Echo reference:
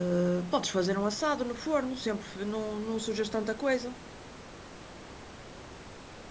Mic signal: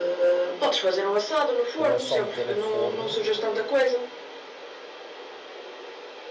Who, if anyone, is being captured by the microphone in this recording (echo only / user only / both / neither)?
both